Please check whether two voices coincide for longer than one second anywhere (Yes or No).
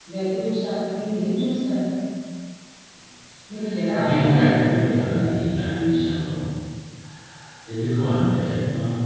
Yes